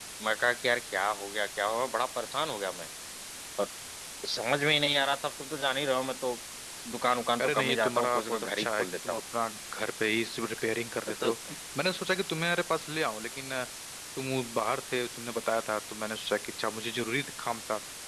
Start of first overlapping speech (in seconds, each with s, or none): 7.4 s